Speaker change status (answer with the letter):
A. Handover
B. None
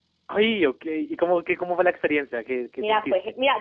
A